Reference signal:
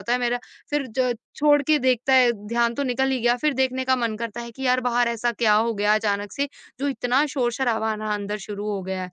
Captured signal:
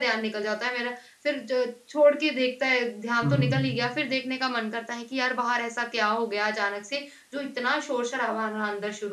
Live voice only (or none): कर दो